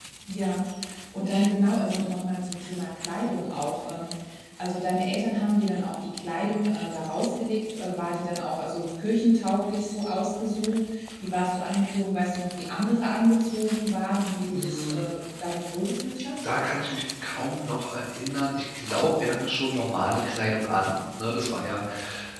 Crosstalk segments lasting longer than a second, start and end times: none

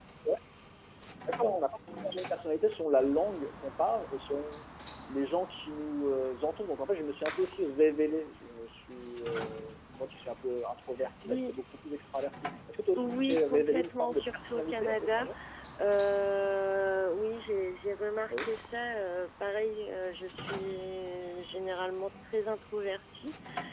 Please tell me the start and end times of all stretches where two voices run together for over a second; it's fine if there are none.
13.0-15.3

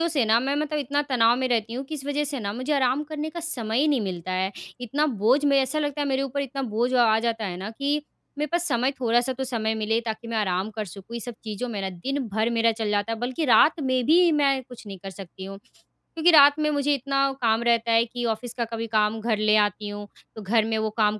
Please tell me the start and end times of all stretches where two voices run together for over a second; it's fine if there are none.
none

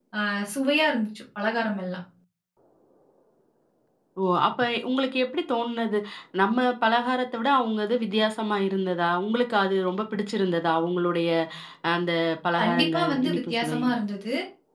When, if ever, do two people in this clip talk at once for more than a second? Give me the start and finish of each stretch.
12.6-13.8

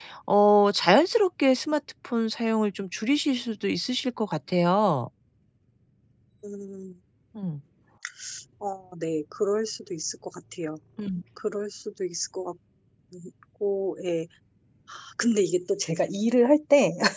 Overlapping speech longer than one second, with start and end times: none

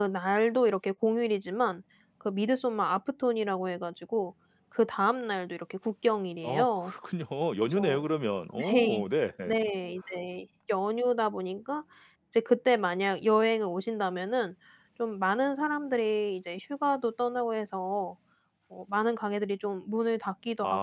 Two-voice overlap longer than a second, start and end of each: none

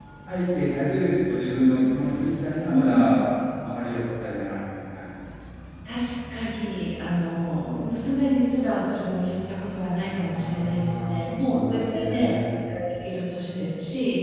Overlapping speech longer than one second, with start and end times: 10.3-12.3

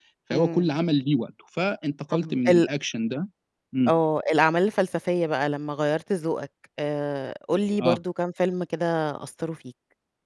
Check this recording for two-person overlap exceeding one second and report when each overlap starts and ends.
none

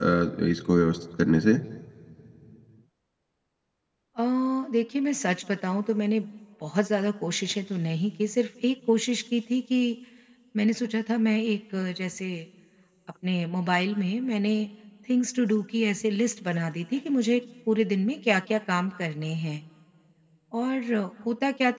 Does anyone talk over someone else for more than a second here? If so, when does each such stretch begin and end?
none

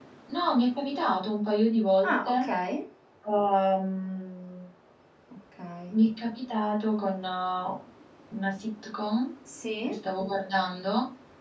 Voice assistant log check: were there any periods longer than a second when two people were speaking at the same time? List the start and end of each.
none

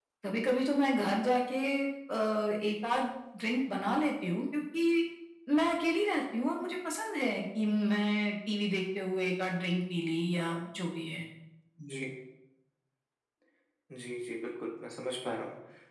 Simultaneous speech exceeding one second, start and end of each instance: none

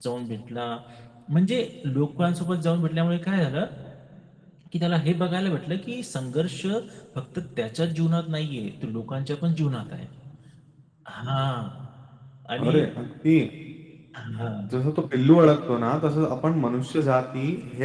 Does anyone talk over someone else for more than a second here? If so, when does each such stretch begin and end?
none

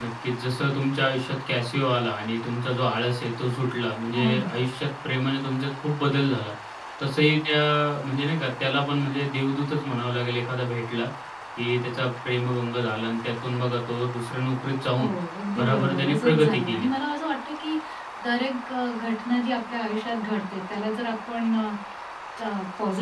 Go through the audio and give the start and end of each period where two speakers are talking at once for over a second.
15.6-16.9

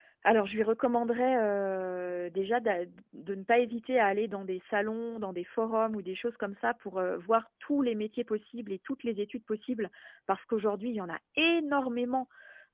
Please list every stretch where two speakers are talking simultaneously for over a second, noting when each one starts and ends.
none

